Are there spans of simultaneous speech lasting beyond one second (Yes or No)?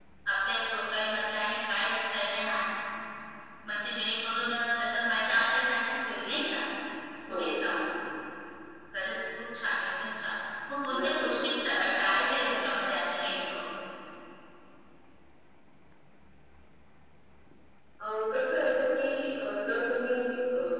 No